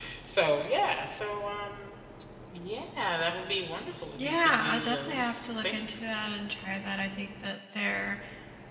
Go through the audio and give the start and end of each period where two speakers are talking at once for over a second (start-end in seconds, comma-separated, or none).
4.2-6.1